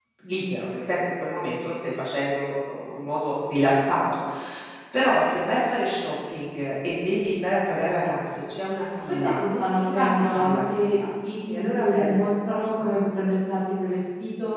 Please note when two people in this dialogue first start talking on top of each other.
9 s

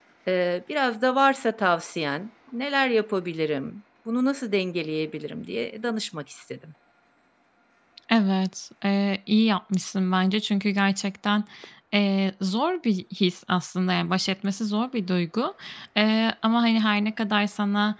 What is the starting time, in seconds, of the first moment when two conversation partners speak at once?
none

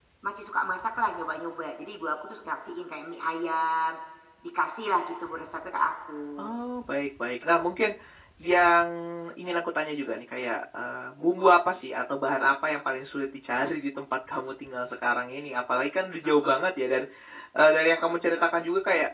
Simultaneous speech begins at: none

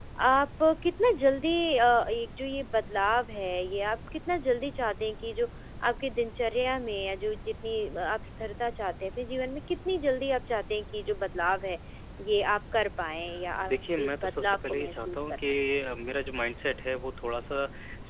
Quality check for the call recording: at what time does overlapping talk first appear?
14 s

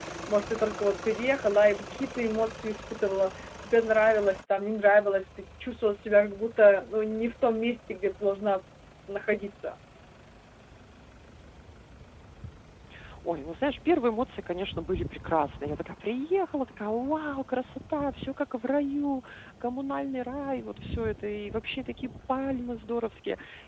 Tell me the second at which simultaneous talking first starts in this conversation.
none

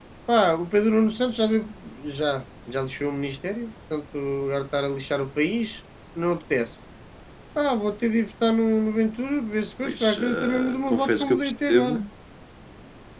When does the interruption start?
10 s

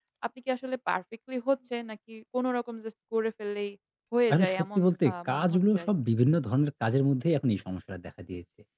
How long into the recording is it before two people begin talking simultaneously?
4 s

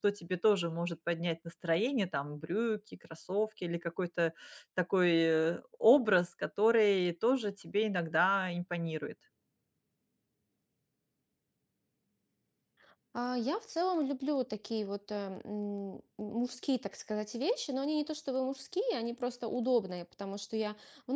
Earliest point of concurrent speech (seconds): none

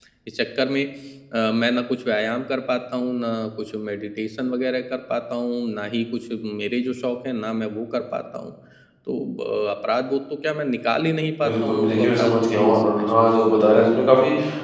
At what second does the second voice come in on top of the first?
11 s

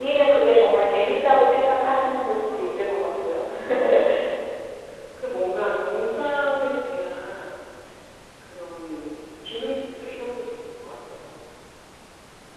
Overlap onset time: 2 s

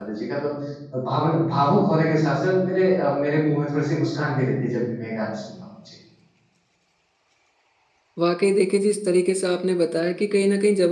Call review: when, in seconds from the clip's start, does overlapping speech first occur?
none

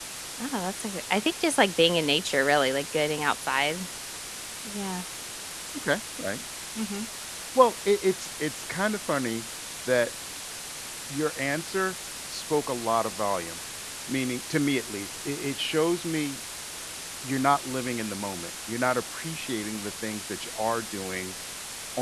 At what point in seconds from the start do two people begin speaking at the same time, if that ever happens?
none

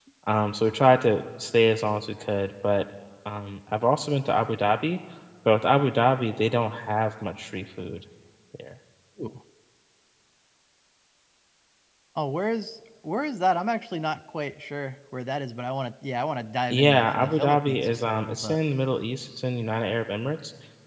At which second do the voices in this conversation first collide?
17 s

